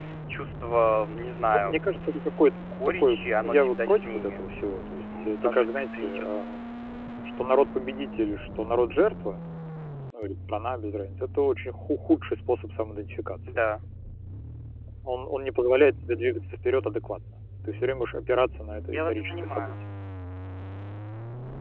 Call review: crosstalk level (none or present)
present